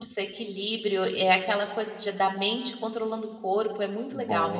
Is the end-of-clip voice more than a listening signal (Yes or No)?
Yes